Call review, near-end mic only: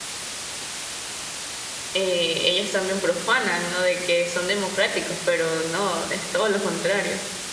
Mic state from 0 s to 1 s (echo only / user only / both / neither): neither